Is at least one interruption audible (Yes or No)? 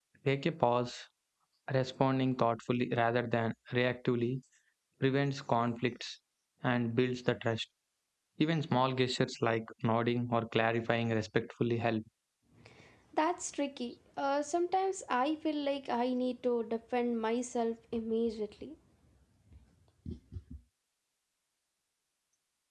No